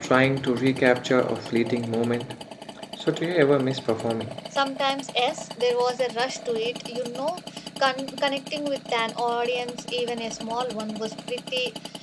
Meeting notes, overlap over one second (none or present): none